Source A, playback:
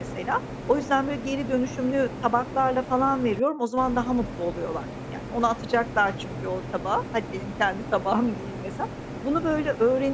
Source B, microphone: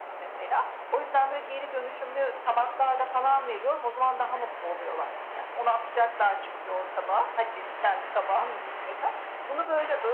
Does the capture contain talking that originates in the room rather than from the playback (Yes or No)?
No